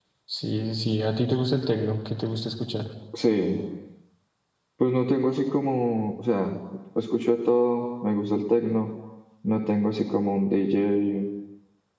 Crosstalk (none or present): none